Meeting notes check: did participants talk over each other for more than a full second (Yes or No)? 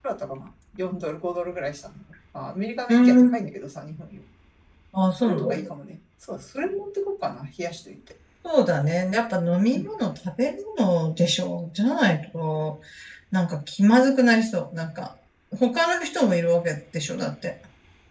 No